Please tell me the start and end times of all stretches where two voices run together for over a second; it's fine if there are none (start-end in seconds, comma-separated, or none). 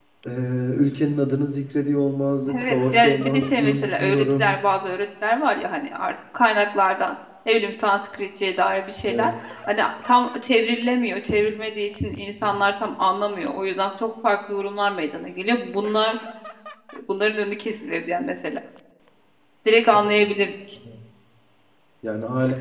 2.5-4.6